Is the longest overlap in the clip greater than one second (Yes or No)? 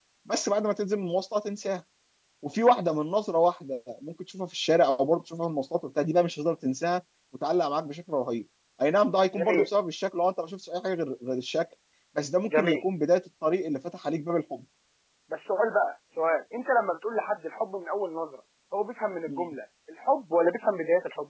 No